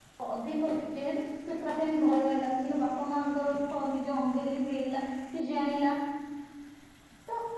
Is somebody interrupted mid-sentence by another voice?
No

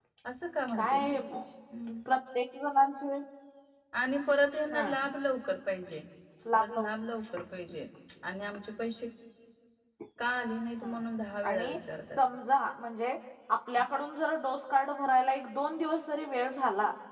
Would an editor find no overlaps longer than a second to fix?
Yes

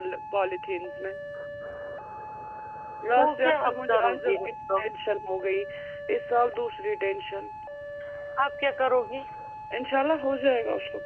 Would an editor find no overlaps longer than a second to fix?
No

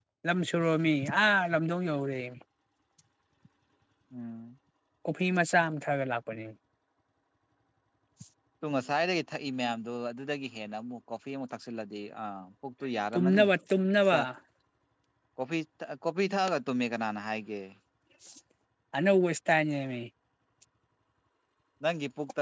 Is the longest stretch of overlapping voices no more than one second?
Yes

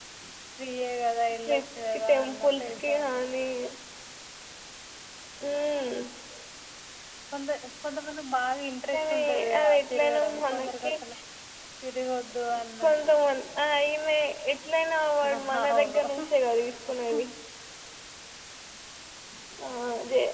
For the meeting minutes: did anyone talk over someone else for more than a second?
Yes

